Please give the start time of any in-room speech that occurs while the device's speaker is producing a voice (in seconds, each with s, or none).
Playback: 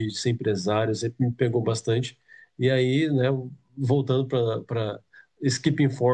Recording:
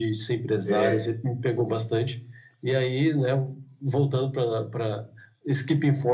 0.6 s